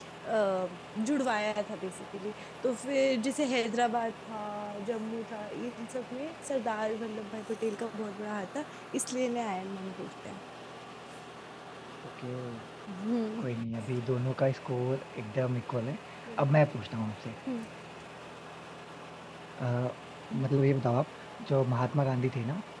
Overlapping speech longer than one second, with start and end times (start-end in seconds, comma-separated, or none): none